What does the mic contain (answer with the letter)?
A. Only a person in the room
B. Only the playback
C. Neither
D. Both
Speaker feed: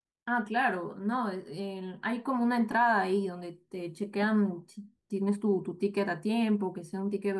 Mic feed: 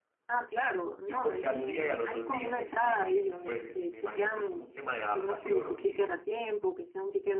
D